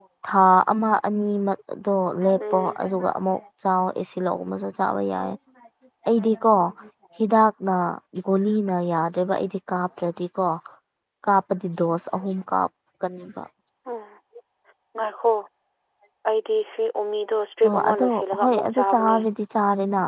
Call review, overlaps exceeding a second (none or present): present